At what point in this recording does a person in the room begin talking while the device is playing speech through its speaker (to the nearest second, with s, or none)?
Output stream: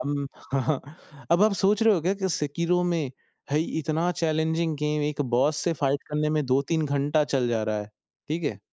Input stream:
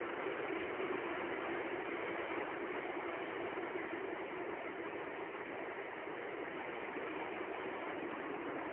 none